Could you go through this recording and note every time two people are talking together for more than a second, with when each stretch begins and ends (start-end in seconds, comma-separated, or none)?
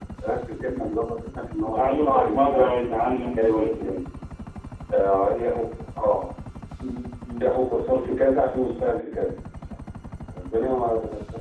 1.6-4.0